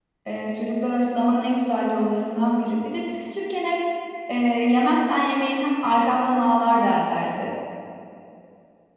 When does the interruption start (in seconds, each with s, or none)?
none